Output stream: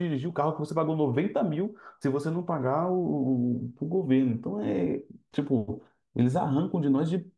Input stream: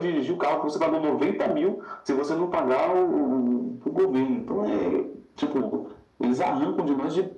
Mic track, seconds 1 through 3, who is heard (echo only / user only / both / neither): echo only